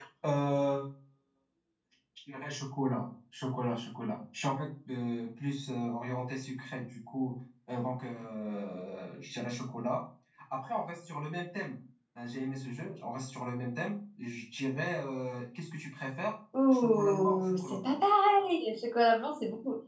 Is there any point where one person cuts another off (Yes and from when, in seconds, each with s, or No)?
Yes, from 16.5 s